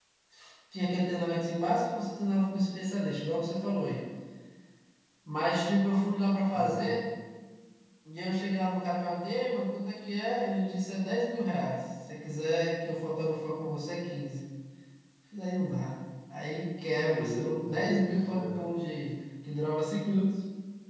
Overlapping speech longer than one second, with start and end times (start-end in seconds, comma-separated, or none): 16.9-18.7